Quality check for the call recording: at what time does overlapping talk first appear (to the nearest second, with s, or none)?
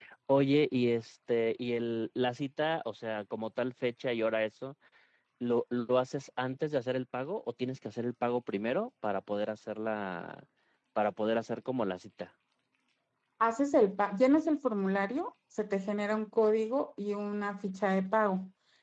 none